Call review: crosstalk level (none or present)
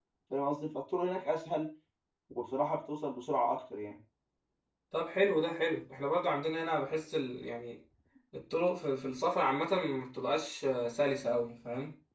none